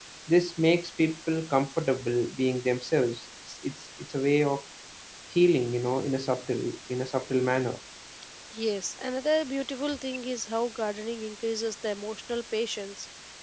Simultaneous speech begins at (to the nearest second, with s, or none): none